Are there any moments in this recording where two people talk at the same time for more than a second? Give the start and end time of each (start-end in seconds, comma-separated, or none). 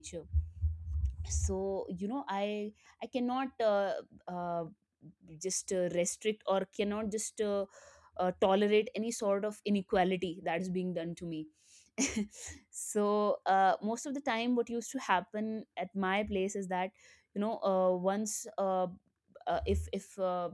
none